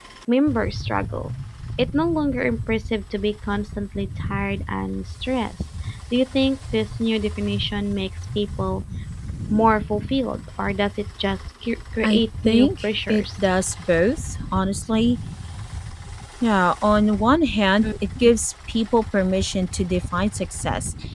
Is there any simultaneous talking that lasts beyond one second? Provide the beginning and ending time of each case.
12.0-13.2

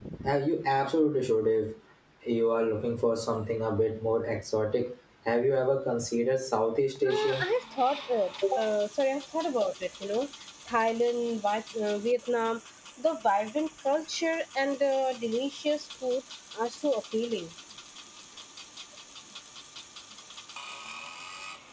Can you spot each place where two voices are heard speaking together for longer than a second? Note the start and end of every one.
none

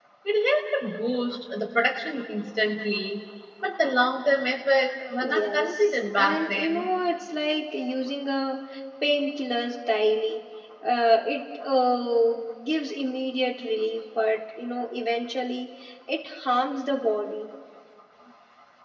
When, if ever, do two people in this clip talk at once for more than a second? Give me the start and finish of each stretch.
5.2-6.9

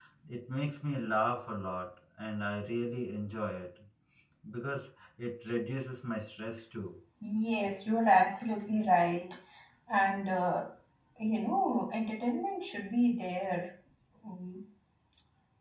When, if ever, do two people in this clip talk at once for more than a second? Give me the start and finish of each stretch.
none

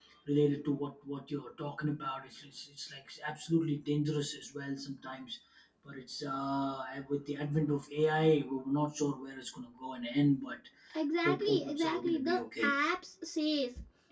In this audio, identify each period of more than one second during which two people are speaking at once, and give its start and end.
11.2-12.7

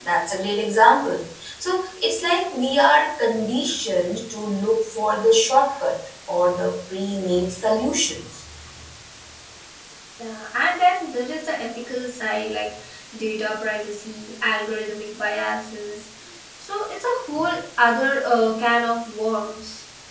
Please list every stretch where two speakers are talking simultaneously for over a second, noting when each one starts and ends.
none

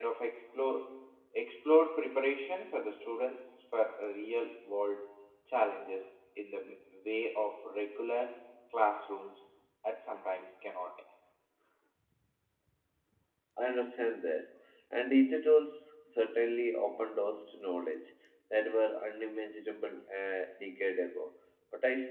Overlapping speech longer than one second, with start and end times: none

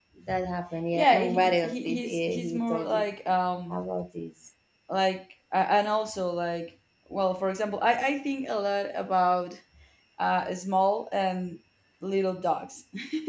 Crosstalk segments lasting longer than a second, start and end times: 0.9-3.1

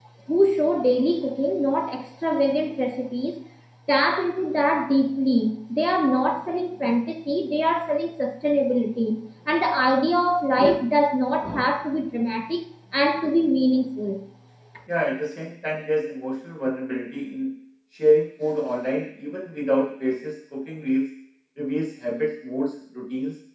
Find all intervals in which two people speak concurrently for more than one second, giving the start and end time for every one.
none

